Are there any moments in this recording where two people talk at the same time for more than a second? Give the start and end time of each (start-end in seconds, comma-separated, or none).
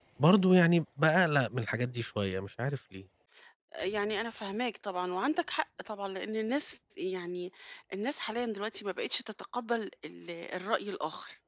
none